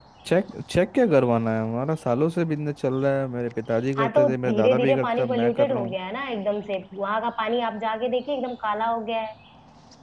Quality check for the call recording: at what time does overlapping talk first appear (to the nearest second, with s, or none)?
4 s